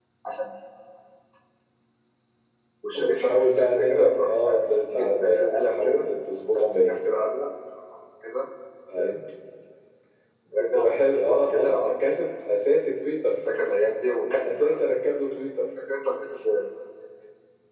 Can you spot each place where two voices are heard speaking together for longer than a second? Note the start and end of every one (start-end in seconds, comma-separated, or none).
3.0-6.0, 10.6-11.9